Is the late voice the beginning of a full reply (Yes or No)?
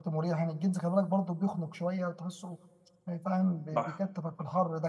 No